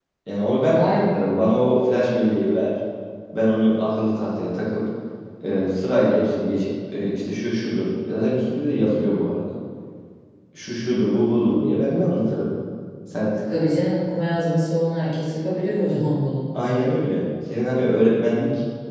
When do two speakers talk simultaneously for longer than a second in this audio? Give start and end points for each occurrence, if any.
none

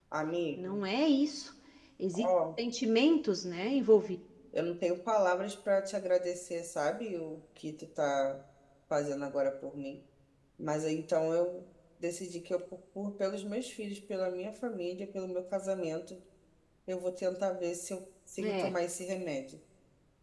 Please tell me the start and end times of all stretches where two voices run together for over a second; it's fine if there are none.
none

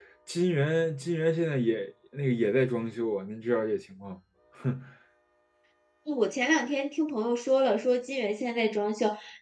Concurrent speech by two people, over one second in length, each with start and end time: none

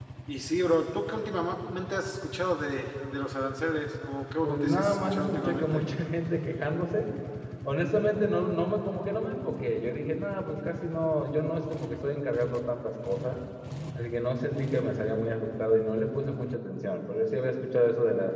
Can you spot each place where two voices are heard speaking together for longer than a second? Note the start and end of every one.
4.4-5.8

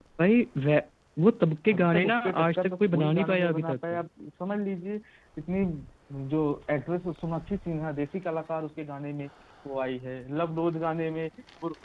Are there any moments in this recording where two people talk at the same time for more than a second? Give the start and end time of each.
1.7-4.0

